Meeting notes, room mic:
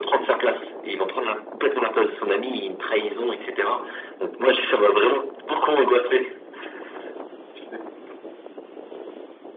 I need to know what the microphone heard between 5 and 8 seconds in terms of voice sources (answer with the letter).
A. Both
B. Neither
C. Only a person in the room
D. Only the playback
D